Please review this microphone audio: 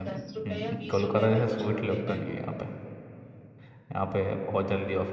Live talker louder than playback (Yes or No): Yes